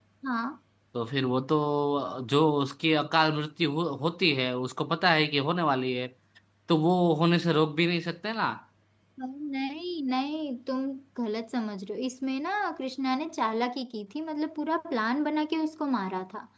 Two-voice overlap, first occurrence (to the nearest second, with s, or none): none